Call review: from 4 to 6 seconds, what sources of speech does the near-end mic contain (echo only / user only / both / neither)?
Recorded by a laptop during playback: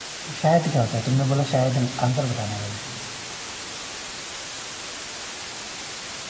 neither